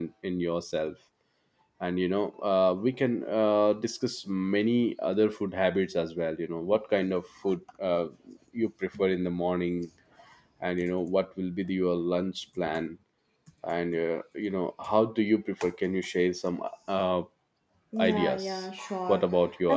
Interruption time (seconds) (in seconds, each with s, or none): 18.0 s